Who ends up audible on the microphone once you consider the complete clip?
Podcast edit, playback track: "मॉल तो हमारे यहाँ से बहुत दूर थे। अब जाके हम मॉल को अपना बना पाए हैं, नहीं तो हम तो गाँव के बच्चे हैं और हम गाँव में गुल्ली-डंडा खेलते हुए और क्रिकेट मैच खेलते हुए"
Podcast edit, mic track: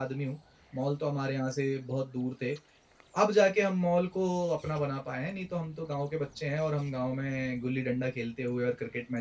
echo only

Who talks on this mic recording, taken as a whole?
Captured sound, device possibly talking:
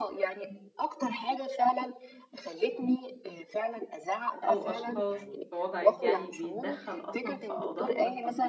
both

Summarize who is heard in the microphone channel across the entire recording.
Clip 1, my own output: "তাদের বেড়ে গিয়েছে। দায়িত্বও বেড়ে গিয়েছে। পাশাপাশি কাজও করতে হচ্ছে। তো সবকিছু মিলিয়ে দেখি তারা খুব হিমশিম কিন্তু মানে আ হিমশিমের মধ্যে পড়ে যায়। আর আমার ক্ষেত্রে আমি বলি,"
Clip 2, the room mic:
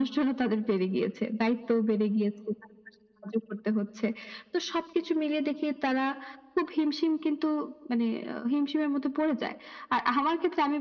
echo only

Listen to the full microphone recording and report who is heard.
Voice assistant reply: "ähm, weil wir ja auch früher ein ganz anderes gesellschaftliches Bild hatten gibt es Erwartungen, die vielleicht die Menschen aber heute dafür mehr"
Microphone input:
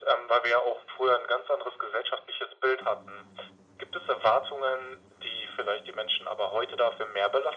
echo only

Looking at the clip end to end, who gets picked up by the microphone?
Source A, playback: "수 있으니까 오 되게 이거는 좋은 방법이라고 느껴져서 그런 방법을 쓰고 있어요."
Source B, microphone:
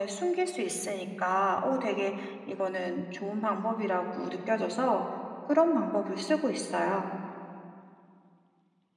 echo only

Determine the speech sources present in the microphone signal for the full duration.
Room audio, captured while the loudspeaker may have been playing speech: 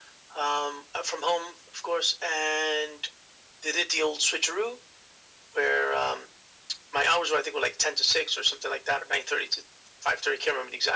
echo only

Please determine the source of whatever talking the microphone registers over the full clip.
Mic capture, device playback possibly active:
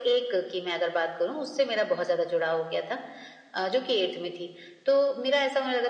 echo only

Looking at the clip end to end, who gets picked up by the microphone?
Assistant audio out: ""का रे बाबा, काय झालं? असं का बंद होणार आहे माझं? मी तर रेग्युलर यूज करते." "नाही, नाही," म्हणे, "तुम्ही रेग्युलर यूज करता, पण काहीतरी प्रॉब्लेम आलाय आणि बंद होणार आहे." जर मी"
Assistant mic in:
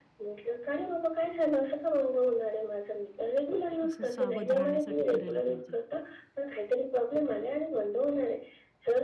both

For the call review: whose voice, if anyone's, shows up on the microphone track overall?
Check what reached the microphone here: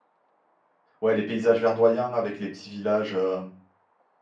user only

